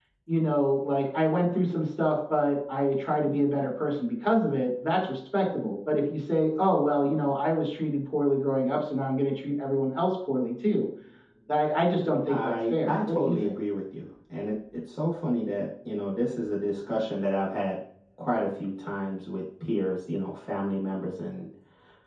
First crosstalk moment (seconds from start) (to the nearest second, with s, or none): 12 s